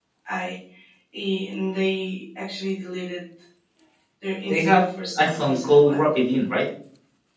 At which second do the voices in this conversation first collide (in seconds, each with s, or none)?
4.5 s